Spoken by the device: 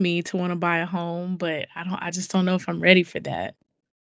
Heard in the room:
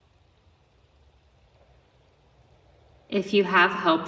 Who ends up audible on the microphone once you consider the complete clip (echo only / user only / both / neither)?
user only